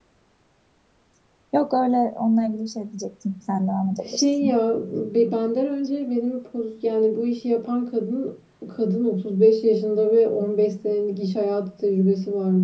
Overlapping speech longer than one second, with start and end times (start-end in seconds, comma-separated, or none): none